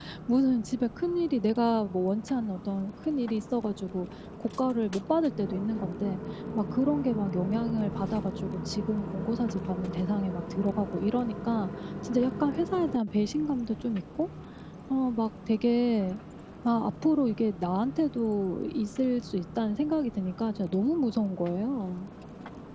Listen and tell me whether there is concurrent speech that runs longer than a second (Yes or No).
No